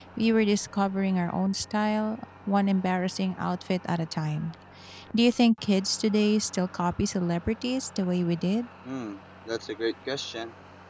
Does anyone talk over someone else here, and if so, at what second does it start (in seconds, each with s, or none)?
none